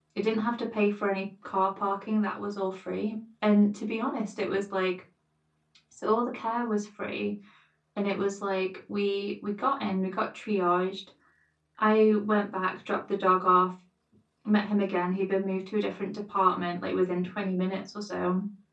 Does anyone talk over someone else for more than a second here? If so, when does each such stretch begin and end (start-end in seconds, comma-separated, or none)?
none